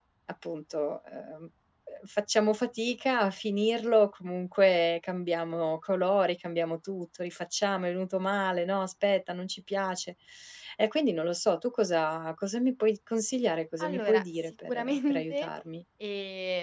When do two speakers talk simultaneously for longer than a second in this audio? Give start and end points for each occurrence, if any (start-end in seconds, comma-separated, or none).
13.8-15.5